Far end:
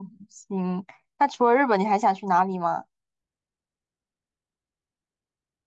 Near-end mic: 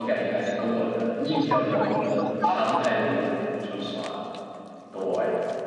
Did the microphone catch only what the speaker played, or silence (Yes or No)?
No